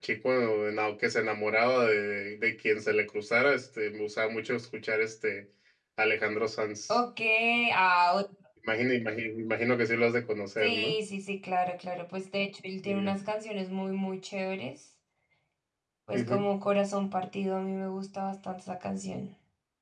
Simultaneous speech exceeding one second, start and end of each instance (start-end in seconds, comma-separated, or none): none